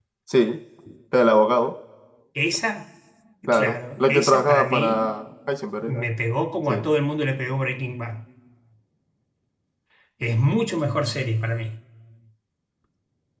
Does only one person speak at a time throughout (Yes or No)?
No